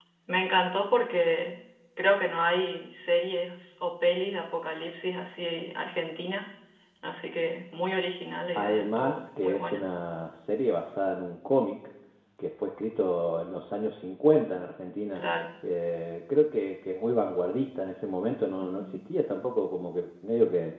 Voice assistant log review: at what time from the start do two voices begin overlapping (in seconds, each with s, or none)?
8.6 s